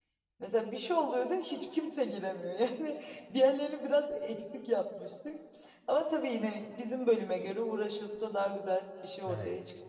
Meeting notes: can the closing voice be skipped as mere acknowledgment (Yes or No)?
No